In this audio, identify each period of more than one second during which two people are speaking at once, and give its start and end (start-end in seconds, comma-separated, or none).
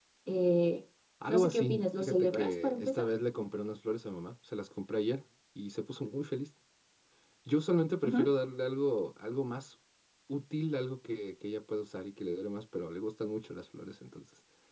1.3-3.1